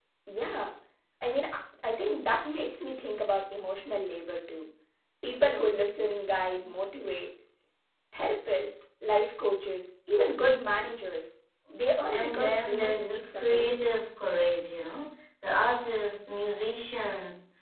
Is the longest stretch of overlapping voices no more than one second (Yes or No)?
No